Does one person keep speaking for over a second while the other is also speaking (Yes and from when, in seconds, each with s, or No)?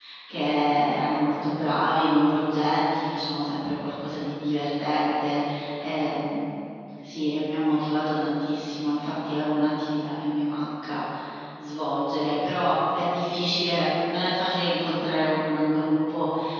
No